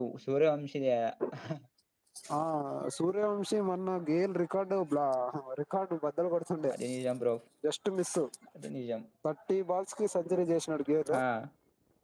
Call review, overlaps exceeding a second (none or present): none